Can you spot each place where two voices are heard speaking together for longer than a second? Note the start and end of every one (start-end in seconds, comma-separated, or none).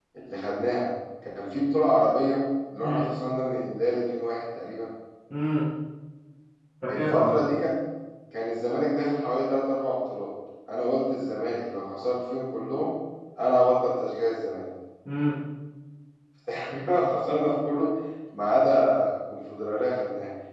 none